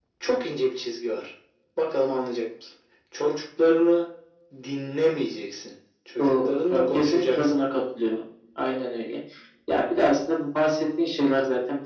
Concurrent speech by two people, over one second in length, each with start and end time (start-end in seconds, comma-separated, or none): 6.2-7.6